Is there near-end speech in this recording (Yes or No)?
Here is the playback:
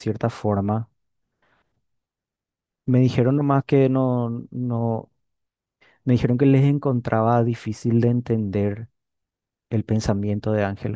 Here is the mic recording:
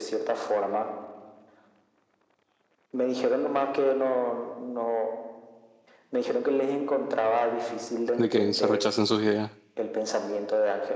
Yes